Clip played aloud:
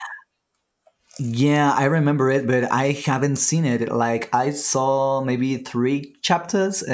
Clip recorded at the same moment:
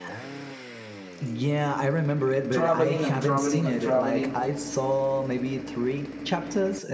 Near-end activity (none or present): present